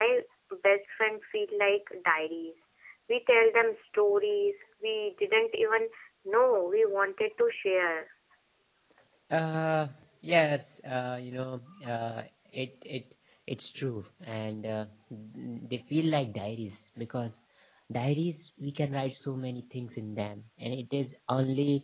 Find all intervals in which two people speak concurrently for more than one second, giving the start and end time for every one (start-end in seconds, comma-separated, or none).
none